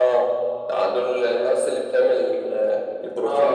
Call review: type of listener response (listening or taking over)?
taking over